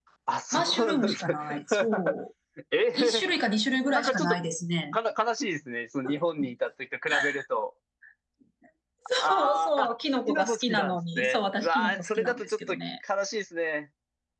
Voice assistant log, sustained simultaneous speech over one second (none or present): present